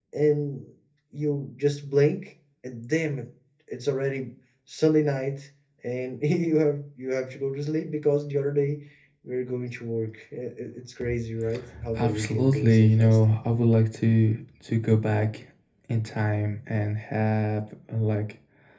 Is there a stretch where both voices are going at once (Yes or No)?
Yes